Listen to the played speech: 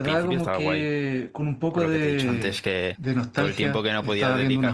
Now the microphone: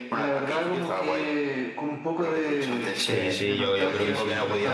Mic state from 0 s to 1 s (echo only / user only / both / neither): echo only